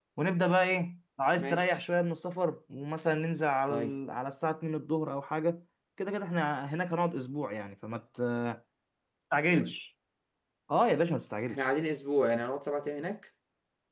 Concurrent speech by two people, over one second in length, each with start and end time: none

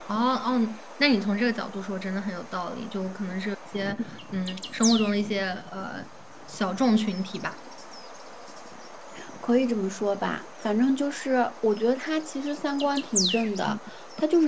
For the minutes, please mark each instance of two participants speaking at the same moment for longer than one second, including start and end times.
none

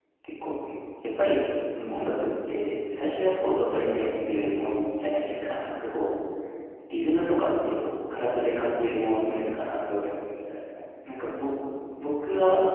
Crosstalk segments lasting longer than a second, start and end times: none

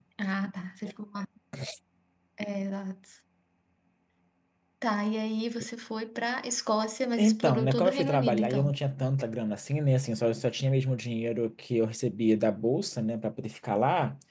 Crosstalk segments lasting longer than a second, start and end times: 7.2-8.7

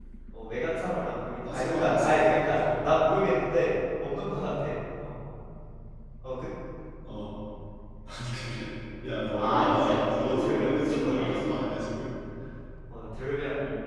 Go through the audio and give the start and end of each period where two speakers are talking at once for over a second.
1.4-2.8, 9.3-11.5

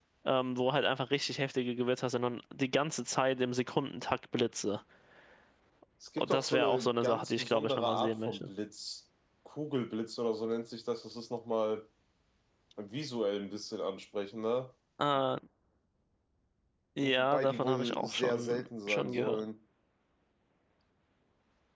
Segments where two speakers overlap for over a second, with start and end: 6.2-8.4, 17.0-19.4

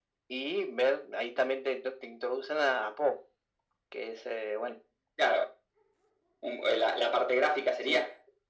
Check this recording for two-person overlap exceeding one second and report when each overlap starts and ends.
none

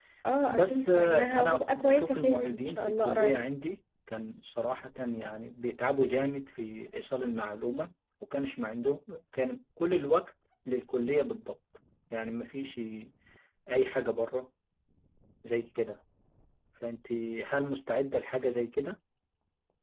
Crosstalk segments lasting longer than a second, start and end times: 0.5-3.4

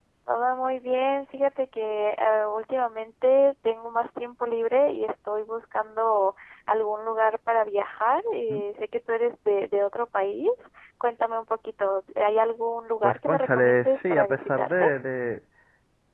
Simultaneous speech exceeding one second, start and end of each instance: 13.0-14.9

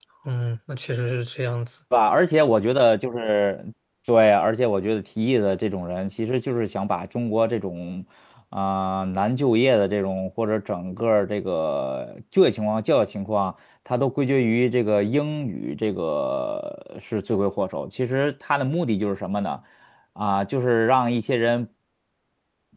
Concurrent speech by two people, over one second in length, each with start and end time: none

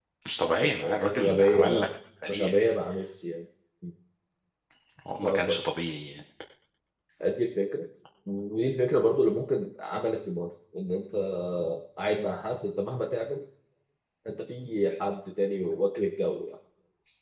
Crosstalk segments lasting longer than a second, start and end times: 0.6-1.9

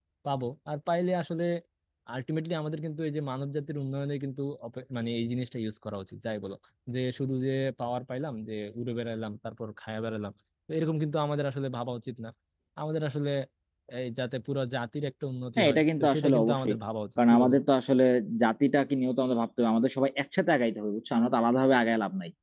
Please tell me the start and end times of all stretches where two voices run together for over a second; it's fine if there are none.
15.6-16.8

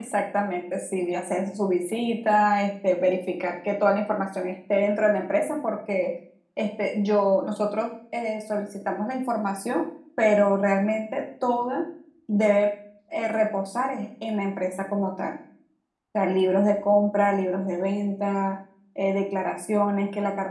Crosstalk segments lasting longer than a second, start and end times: none

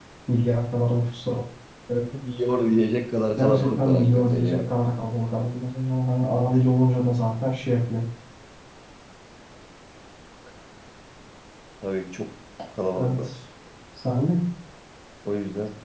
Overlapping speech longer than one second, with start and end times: 3.4-4.7

